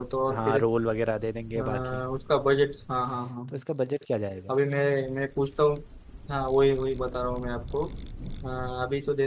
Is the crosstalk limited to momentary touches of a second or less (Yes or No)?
Yes